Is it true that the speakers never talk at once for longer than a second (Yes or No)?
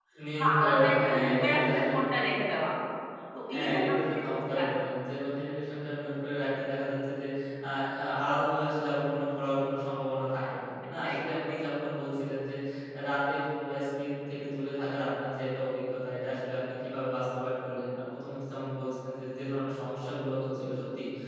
No